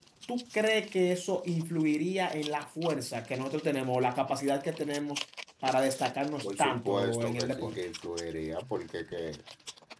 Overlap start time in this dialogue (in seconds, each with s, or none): 6.4 s